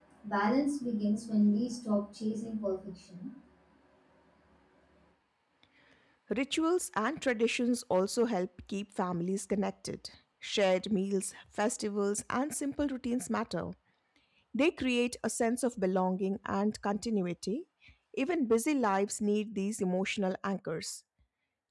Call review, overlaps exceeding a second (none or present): none